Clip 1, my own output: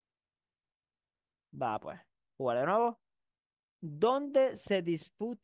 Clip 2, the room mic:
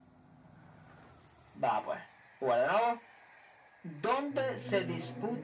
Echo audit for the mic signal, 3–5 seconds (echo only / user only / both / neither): both